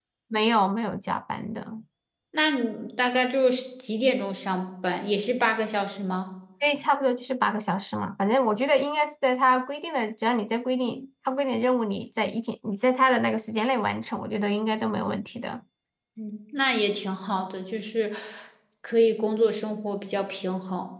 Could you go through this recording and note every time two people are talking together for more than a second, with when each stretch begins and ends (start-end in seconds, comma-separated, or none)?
none